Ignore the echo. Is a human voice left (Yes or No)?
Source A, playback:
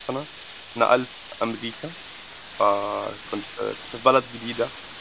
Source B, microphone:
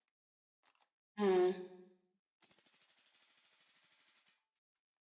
Yes